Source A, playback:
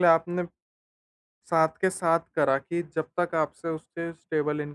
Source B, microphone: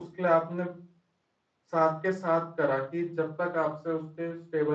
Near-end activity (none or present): none